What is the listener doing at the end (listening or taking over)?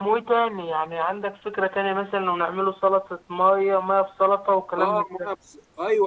taking over